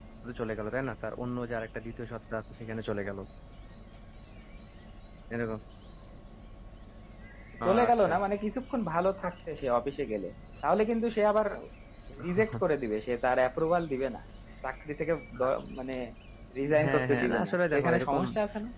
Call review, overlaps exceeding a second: present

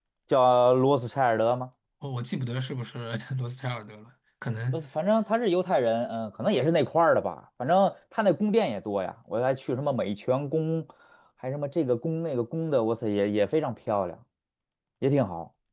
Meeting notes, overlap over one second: none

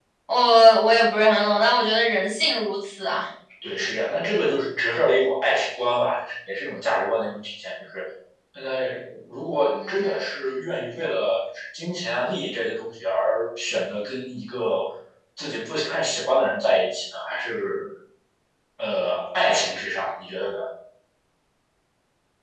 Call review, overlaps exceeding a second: none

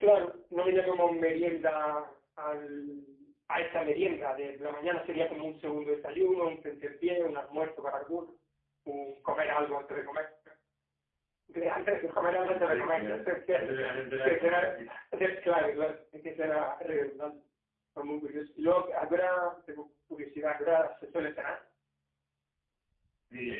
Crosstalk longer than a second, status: present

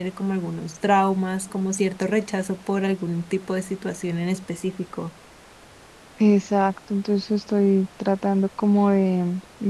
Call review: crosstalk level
none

